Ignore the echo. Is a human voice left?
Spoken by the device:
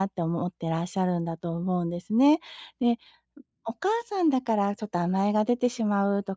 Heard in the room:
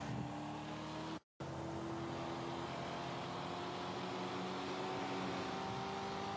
No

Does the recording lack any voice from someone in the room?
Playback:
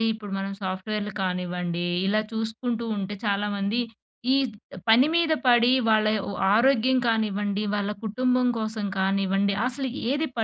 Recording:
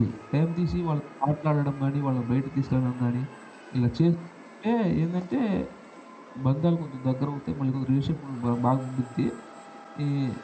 No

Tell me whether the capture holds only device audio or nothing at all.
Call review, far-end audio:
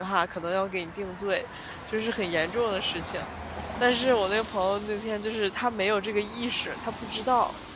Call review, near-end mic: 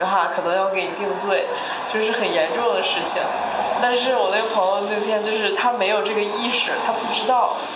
Yes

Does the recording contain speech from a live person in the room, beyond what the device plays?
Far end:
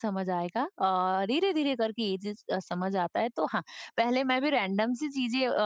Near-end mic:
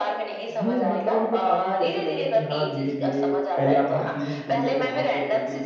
Yes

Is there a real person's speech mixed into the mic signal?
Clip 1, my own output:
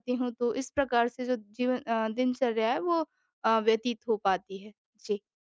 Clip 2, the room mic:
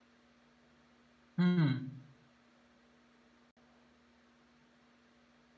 Yes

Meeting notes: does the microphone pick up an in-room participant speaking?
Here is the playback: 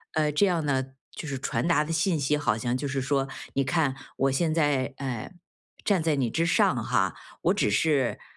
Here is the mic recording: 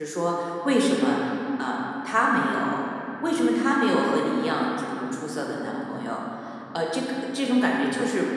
Yes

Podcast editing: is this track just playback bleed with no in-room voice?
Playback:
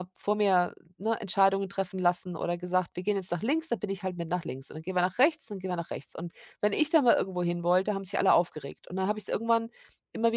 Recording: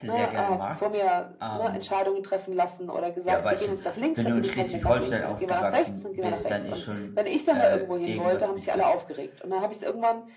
No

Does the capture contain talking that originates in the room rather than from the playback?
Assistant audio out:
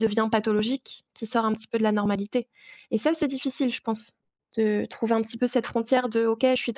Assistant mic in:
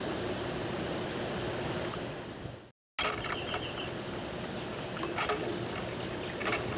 No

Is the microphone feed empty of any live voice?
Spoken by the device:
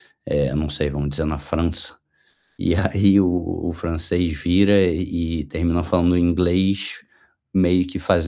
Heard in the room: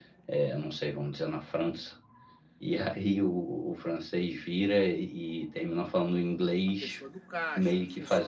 No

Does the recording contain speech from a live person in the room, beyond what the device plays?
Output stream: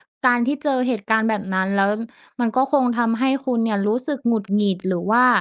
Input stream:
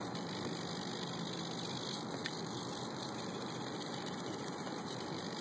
No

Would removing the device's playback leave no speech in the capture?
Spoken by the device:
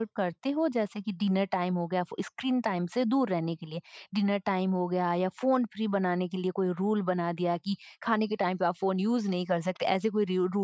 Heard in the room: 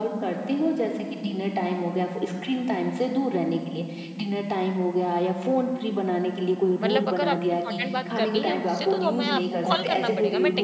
No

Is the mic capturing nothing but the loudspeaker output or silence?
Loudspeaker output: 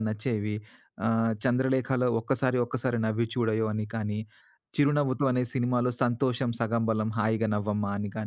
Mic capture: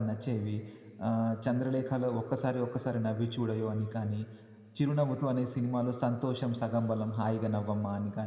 Yes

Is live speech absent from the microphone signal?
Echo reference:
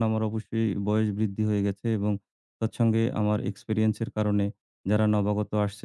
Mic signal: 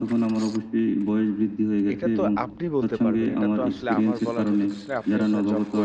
No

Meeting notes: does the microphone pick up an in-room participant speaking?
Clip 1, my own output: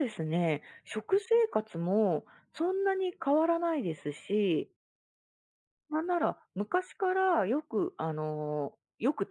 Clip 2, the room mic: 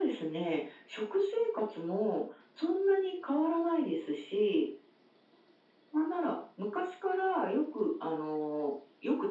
No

